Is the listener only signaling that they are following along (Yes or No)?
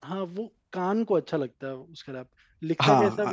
No